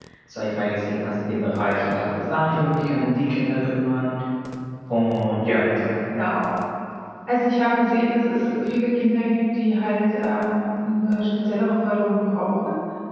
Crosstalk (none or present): none